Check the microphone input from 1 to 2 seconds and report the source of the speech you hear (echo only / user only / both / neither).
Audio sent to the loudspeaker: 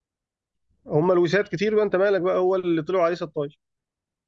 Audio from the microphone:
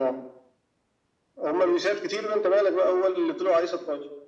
echo only